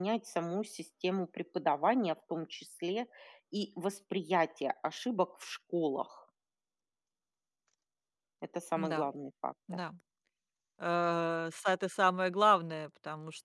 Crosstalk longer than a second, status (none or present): none